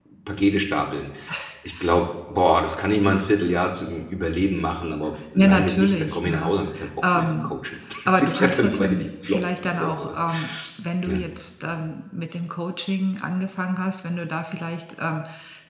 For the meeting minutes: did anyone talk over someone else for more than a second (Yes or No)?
Yes